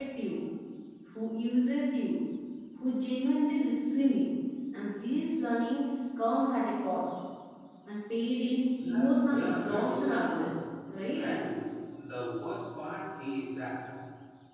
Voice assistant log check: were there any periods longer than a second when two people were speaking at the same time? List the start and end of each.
8.8-10.6

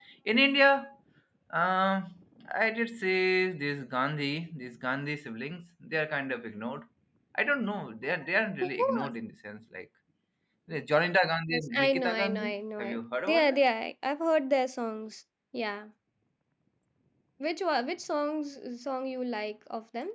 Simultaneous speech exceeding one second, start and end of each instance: 11.5-13.6

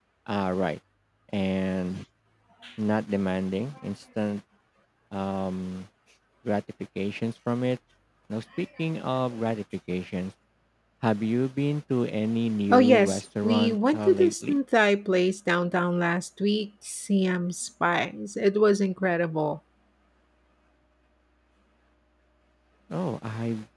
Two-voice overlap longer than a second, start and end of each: 12.7-14.6

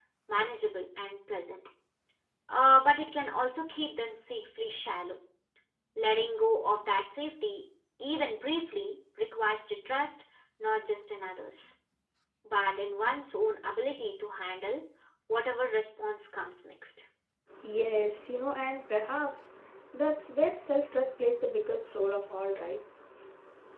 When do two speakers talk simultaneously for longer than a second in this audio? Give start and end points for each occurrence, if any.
none

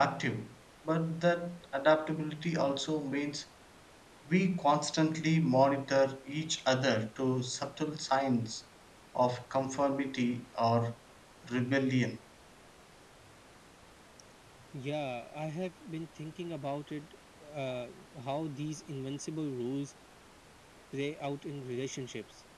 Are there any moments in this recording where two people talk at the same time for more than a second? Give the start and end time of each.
none

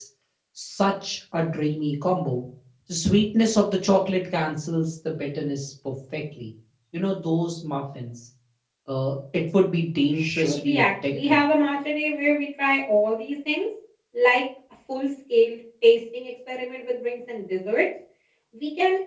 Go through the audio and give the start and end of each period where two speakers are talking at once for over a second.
10.1-11.4

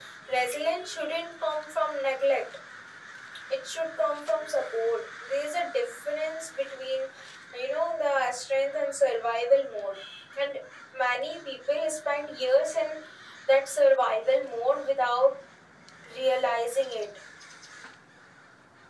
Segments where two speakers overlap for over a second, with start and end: none

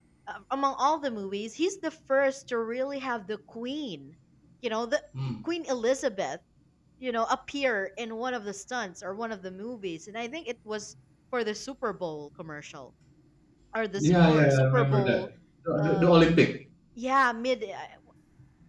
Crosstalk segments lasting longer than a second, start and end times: 14.0-15.2

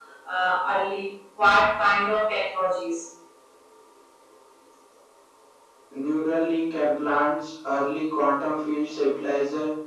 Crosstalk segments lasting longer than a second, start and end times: none

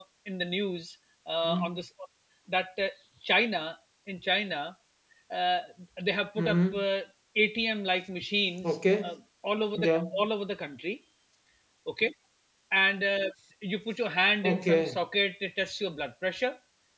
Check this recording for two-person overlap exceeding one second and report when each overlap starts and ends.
none

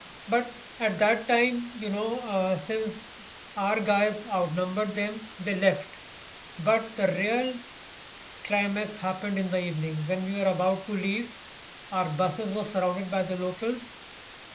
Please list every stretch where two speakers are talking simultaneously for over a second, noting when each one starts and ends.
none

